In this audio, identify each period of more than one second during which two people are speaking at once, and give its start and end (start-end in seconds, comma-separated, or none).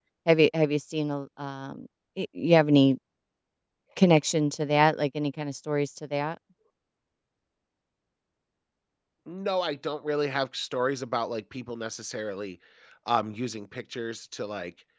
none